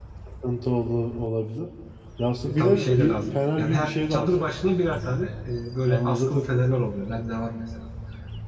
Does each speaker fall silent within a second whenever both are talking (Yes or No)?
No